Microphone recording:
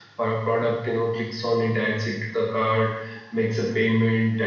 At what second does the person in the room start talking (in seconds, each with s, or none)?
none